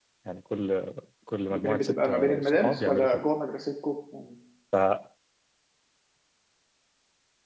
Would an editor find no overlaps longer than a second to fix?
No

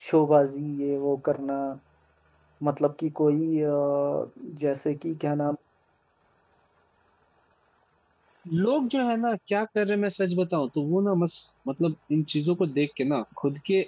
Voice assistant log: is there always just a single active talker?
Yes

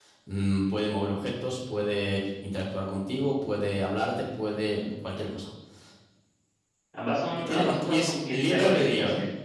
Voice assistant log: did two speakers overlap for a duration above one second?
Yes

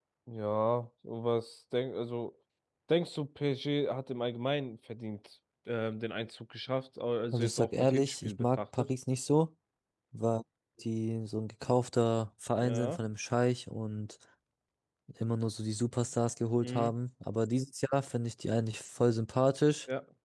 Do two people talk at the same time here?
Yes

